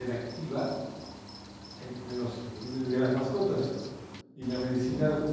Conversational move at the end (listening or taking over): listening